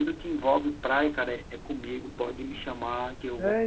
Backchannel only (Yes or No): No